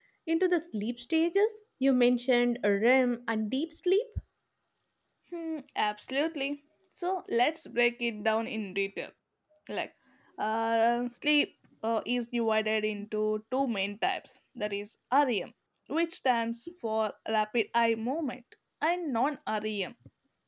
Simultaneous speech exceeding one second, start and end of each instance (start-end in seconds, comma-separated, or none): none